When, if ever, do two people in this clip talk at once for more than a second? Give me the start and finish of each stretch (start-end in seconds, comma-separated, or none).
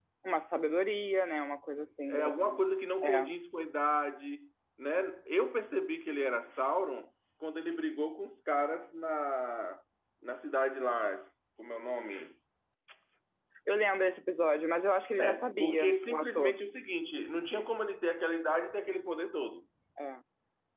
15.2-16.6